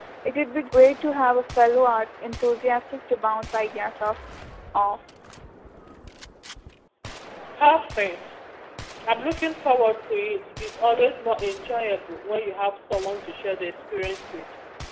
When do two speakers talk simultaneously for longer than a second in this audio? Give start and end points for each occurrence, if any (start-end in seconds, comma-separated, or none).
none